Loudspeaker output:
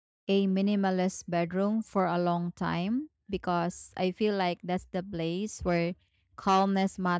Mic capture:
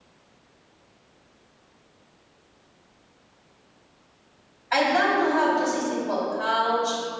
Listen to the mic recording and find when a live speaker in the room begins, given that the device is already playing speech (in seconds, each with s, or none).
4.7 s